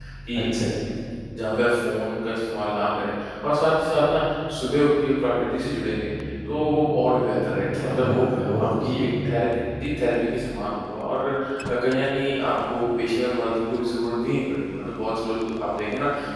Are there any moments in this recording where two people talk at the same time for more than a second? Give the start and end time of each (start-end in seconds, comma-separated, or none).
7.7-9.1